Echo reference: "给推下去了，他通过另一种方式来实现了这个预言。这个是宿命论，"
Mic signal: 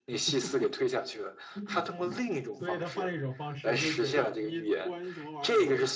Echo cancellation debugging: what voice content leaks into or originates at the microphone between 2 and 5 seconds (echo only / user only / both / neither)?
both